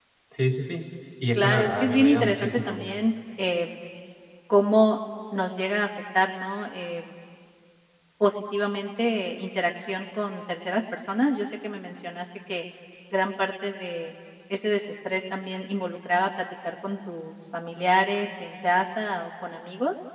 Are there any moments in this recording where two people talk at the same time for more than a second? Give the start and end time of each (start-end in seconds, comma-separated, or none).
1.3-2.8